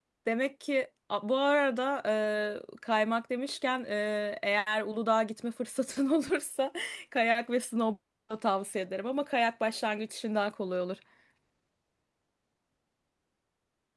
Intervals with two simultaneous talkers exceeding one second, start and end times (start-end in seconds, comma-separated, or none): none